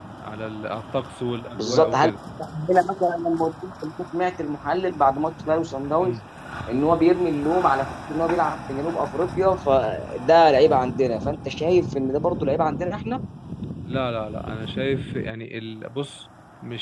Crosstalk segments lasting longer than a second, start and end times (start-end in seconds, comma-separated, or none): none